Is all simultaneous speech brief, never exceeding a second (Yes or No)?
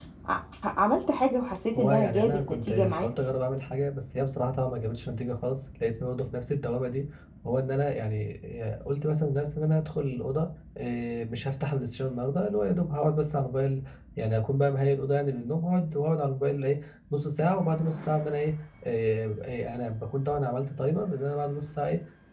No